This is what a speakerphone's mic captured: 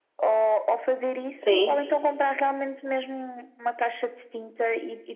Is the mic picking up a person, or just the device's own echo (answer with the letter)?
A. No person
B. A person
B